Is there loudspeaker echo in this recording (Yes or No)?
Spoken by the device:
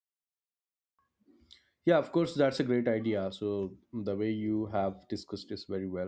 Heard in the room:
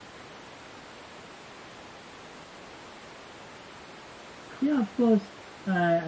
No